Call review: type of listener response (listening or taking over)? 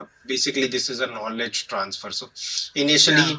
listening